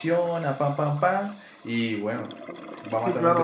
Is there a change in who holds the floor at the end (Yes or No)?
Yes